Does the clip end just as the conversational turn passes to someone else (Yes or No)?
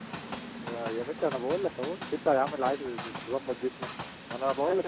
Yes